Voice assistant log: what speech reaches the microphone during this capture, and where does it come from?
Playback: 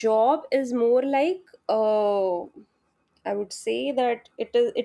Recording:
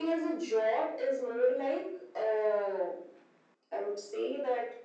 echo only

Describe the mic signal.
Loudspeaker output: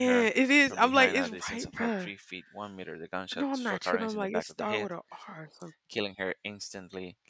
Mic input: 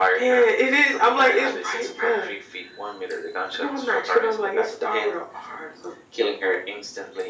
echo only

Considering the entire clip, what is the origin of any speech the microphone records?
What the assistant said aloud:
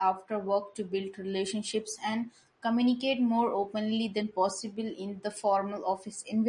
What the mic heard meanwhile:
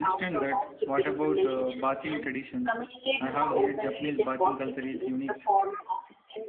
both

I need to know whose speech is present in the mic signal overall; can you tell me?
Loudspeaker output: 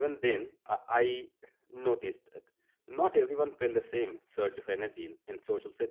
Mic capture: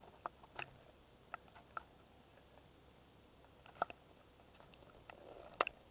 neither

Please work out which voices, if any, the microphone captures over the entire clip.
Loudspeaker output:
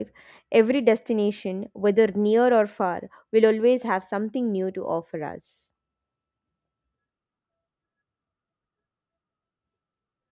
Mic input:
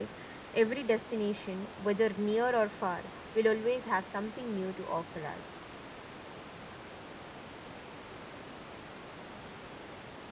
echo only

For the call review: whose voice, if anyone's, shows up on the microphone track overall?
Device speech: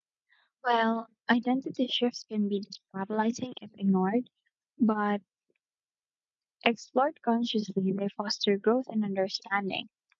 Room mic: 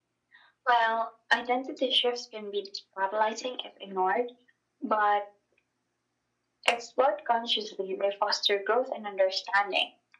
echo only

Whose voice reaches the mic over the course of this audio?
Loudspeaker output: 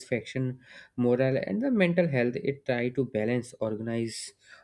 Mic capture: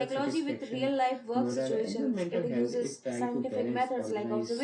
both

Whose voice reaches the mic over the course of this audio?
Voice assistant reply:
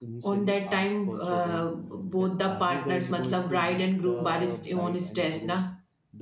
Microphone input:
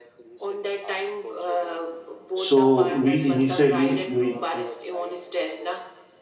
both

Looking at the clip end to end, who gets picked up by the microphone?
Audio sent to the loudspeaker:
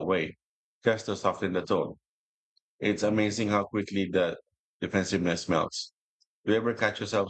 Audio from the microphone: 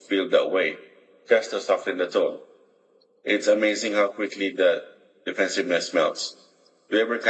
echo only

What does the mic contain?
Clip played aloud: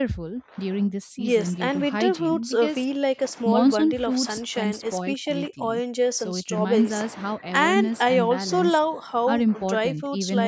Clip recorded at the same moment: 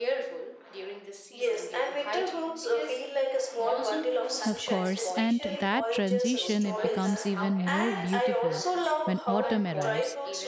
both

